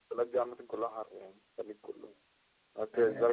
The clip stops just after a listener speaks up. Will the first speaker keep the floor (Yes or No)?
Yes